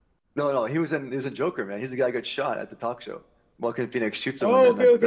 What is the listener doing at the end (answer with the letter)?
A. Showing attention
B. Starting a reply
B